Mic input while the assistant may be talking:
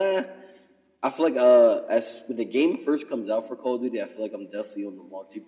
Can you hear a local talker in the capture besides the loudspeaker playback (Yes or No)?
No